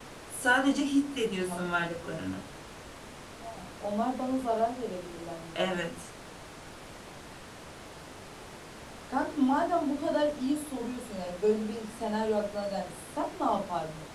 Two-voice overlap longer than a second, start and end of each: none

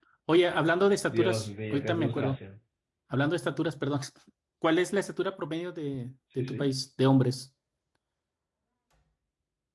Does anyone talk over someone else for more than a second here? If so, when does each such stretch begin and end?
1.1-2.4

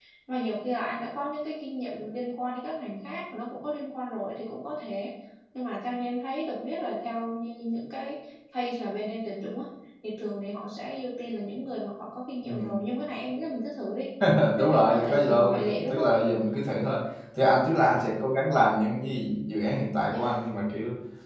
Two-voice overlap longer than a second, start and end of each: 14.6-16.1

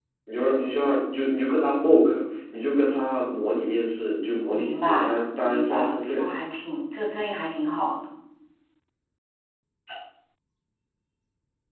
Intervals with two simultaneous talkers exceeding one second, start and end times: 4.5-6.2

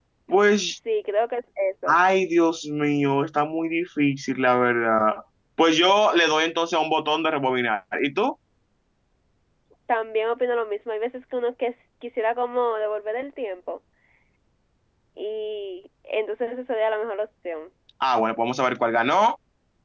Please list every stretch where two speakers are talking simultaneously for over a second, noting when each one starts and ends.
none

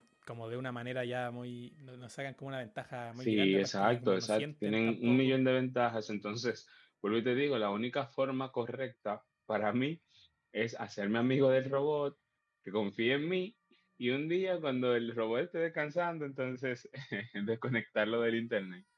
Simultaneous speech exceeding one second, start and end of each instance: 3.2-5.4

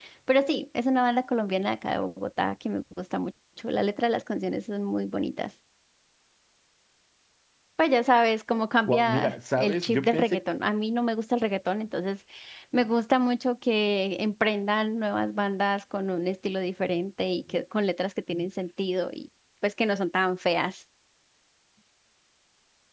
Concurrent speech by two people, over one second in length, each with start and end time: 8.9-10.4

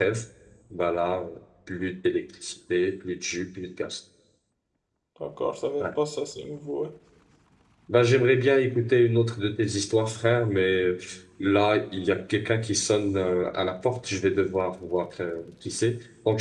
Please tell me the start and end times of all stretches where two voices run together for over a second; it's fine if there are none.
none

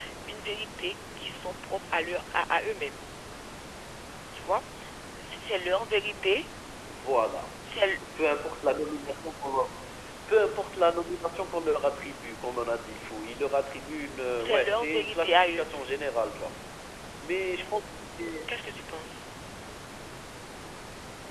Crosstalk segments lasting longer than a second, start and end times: 14.4-15.7

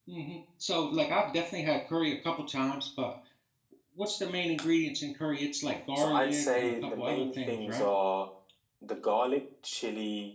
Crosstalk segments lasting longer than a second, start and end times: 6.0-7.9

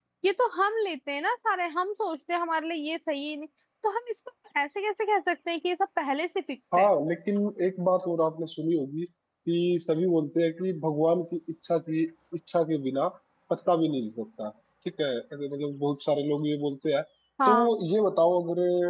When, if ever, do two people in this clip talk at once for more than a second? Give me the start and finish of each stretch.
none

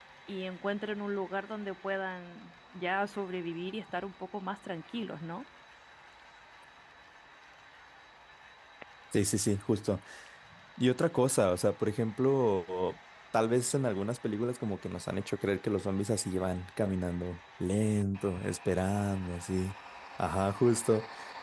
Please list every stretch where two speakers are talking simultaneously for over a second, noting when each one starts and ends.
none

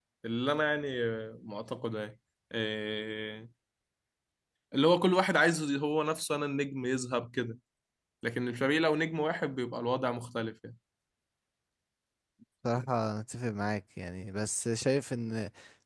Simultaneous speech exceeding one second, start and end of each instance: none

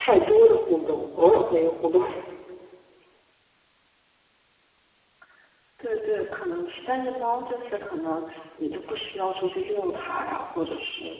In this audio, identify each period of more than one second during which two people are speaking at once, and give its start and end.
none

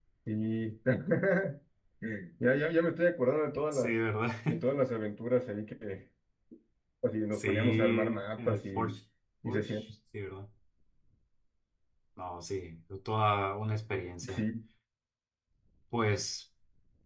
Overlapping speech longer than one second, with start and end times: 7.3-9.0

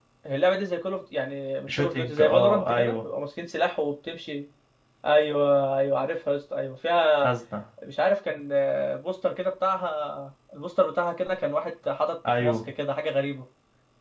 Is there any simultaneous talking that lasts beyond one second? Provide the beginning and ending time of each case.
1.7-3.0

